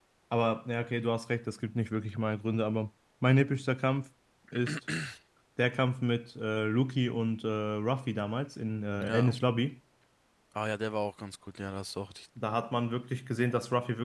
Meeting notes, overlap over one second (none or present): none